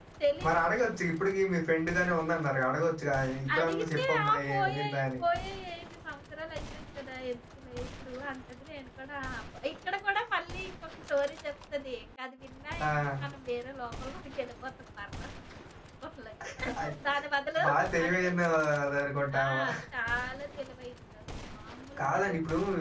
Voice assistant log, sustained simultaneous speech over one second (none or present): present